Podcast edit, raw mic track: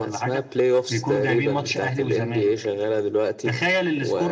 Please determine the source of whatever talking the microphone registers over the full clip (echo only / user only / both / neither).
echo only